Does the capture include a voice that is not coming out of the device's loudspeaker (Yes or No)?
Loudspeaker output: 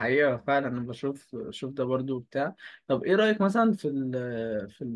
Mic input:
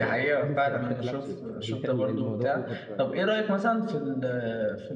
Yes